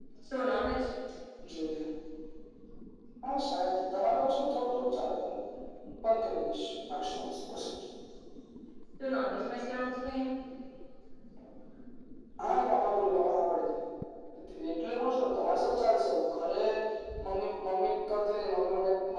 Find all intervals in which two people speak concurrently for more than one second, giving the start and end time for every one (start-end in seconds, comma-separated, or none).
none